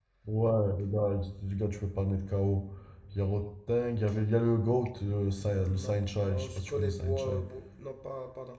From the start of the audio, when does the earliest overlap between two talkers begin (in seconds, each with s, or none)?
5.4 s